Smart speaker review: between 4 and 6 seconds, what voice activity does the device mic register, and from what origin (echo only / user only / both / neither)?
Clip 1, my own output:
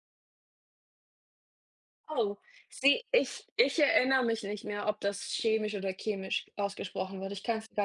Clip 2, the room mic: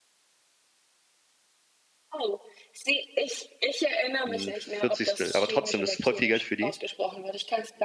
both